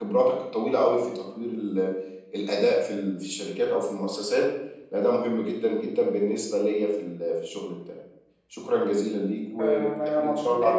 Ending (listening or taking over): taking over